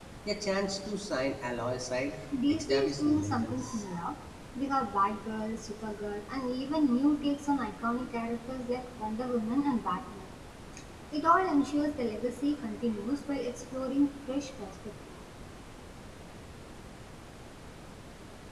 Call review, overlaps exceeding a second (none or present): present